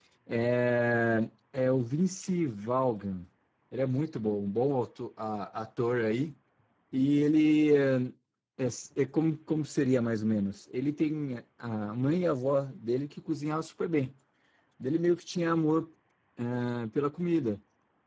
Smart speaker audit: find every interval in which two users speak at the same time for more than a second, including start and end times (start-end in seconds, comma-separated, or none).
none